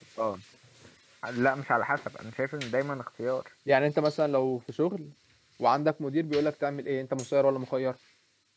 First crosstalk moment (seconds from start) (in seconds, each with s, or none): none